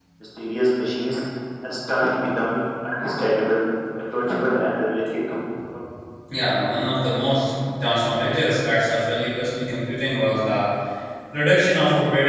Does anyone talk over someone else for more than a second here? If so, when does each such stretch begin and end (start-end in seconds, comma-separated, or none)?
none